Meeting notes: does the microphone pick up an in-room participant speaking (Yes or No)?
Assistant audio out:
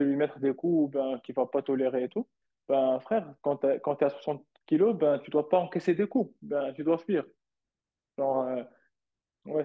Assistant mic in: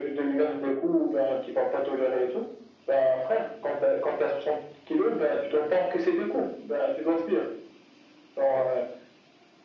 No